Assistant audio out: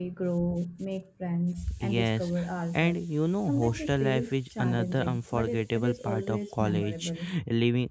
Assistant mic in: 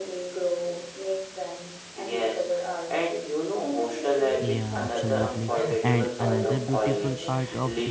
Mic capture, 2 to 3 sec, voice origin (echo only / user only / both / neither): echo only